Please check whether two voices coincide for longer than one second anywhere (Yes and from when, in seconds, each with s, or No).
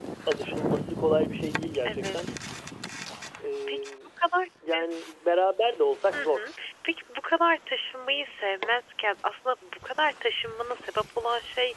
No